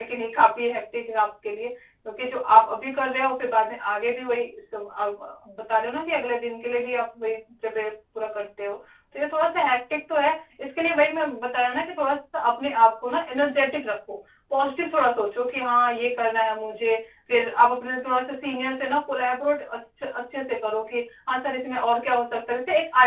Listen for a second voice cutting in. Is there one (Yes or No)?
No